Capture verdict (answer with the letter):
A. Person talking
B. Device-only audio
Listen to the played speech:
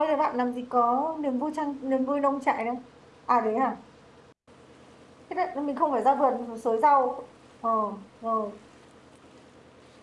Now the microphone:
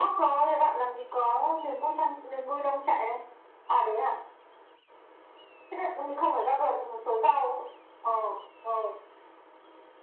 B